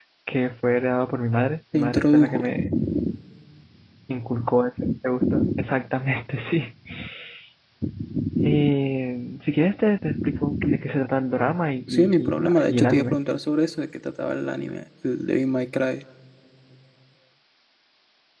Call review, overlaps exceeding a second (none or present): present